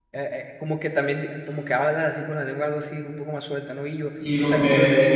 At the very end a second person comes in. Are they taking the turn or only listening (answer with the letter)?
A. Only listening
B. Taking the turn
B